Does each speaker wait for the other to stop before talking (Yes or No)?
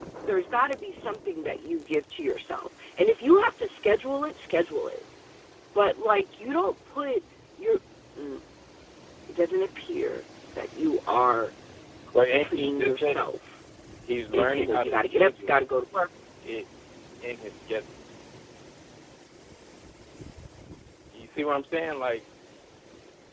No